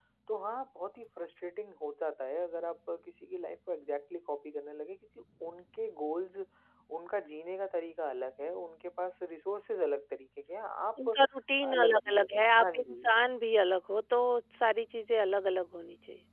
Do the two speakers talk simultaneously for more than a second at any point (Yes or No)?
Yes